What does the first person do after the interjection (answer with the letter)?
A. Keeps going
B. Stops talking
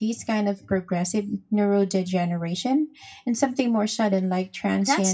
B